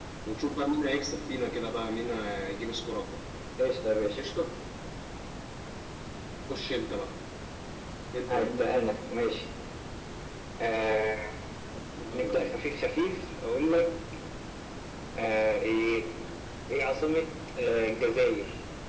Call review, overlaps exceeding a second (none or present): none